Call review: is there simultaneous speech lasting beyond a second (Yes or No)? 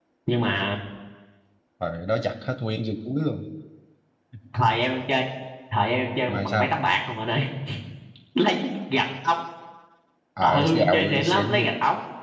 Yes